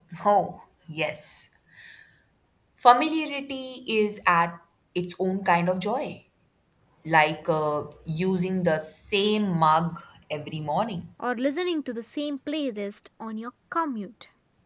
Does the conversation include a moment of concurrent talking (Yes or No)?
No